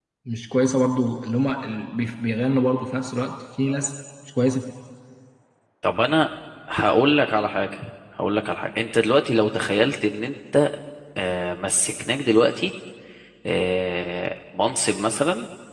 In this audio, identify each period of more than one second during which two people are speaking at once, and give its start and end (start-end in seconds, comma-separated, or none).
none